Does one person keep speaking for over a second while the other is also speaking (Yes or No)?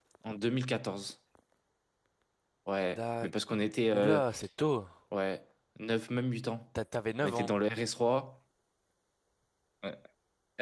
No